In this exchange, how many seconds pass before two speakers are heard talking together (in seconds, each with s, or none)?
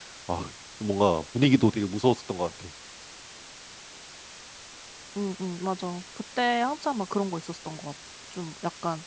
none